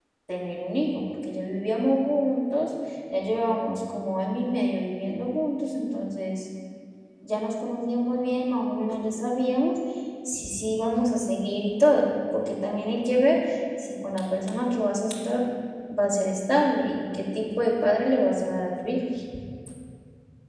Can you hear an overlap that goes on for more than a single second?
No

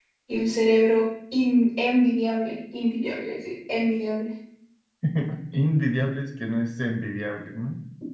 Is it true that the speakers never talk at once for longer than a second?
Yes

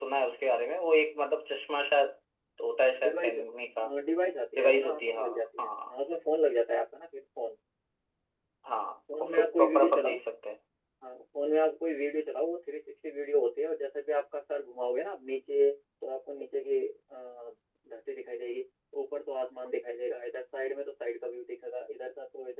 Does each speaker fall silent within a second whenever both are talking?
No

